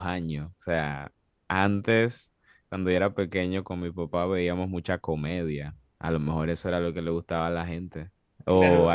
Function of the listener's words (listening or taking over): taking over